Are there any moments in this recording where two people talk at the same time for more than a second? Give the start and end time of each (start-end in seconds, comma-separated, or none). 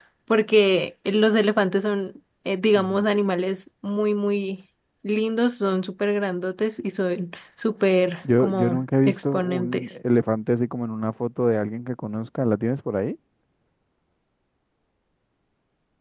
8.4-9.8